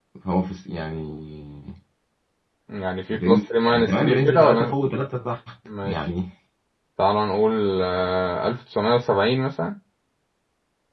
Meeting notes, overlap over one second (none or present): present